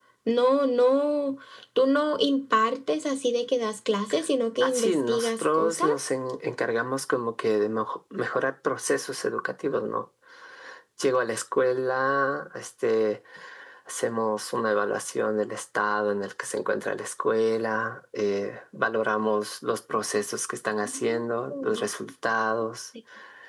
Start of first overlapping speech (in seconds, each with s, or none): 4.6 s